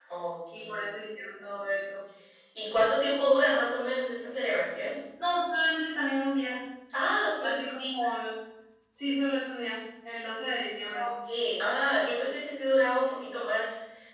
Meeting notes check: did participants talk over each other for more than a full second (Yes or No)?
No